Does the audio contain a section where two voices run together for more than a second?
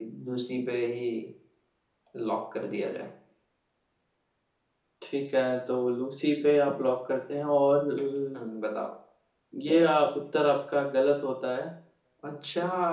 No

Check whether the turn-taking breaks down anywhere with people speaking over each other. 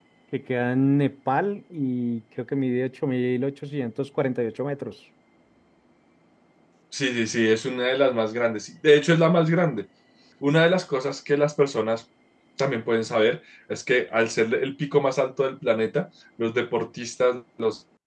No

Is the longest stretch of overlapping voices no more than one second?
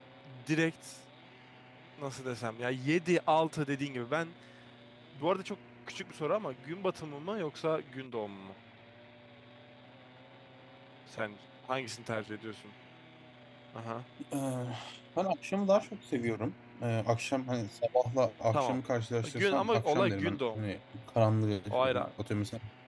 No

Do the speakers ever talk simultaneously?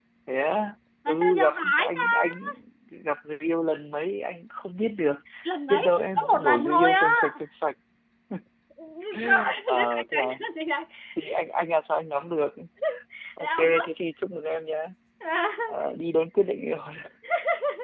Yes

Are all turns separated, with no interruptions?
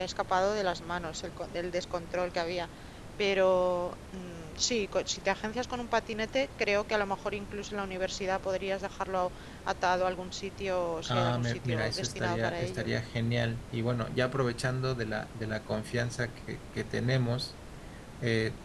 No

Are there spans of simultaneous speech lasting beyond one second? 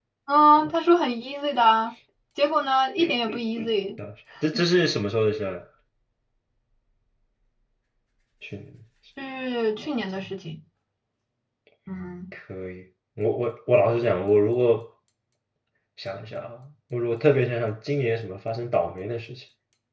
No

